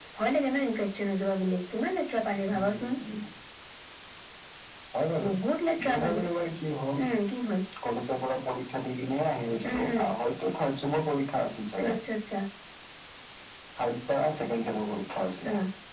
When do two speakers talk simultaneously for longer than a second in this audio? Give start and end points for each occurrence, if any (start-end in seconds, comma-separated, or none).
none